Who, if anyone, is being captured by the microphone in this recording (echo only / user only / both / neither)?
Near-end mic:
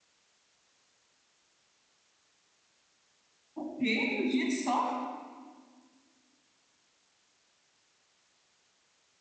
user only